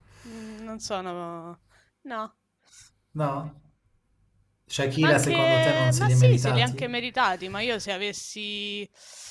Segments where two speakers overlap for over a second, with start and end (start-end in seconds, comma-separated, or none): 5.0-6.8